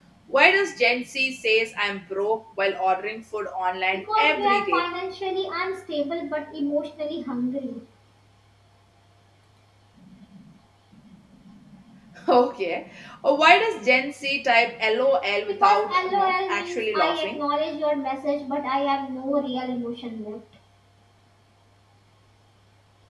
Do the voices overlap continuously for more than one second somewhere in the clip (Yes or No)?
Yes